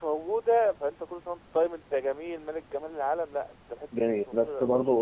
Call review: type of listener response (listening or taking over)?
taking over